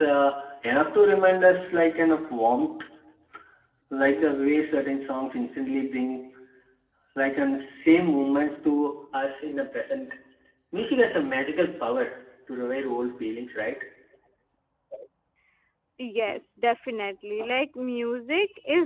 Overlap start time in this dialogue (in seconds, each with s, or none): none